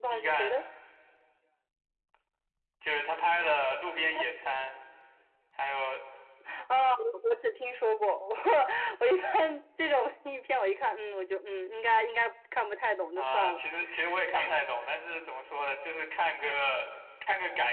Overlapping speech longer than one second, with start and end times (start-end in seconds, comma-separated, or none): none